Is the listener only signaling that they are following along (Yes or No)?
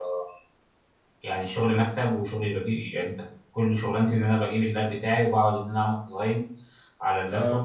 Yes